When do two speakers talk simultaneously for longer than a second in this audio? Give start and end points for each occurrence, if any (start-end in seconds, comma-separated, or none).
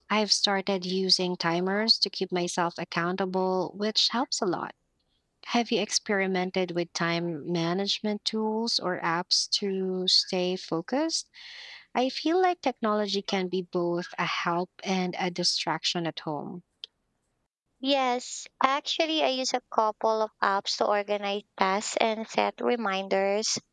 none